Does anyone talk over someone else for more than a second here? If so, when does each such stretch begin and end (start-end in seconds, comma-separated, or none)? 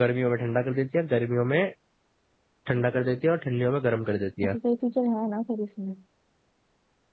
none